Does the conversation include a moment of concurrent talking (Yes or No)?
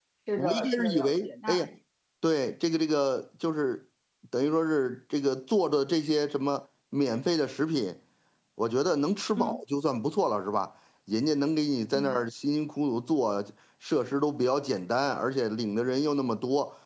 Yes